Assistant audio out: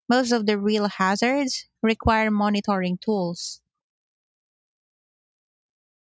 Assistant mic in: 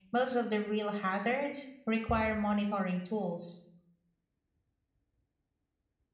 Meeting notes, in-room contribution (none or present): none